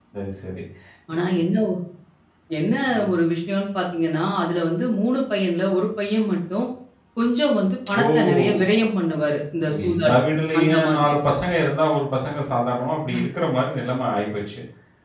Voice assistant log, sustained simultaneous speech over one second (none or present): present